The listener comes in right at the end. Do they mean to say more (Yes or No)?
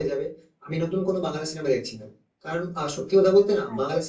No